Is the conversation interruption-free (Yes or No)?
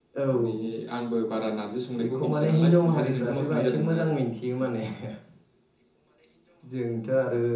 No